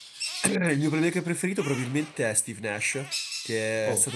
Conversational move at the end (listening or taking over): listening